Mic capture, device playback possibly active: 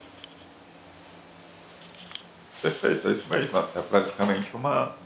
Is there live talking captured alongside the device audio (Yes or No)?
Yes